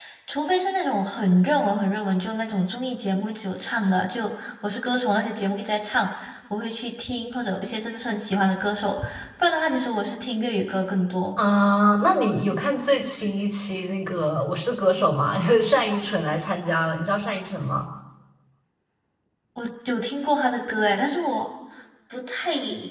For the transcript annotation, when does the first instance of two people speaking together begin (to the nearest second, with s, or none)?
none